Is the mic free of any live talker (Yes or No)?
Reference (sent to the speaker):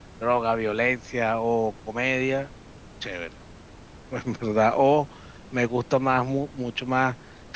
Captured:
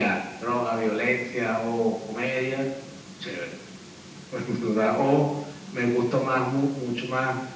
Yes